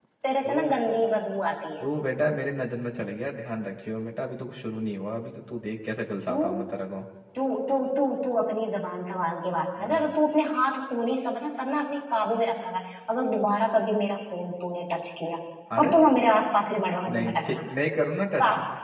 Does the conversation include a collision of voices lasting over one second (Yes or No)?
No